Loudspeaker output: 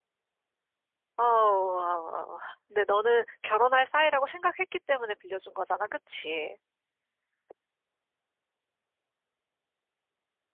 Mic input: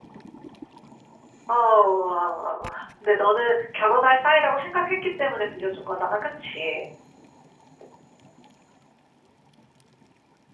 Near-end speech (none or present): none